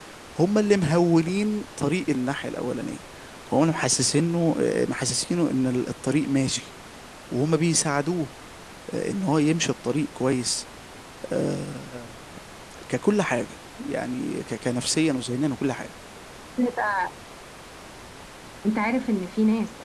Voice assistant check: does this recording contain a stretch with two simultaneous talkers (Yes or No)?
No